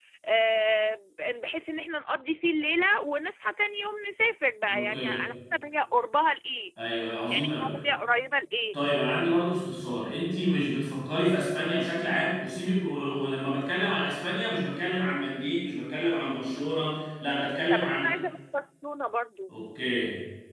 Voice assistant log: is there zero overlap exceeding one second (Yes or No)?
Yes